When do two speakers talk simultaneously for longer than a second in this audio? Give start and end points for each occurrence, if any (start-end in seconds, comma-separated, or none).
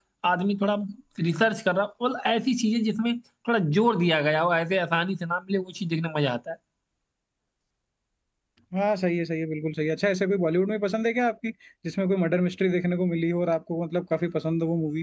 none